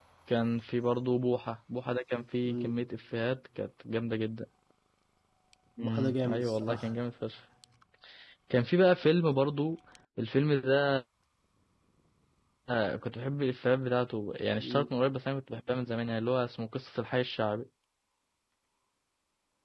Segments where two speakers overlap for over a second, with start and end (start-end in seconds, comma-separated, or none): 5.8-7.1